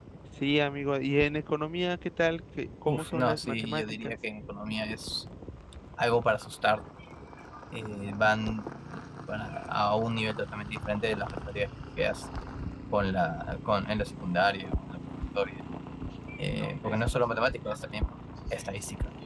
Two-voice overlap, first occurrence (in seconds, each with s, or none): 2.8 s